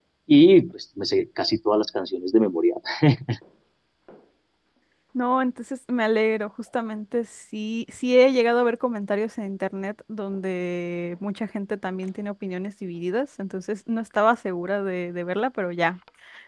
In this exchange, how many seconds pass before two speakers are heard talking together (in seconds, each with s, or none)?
none